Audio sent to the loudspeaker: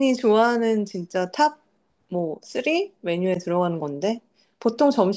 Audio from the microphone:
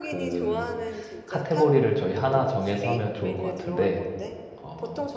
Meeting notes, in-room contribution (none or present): present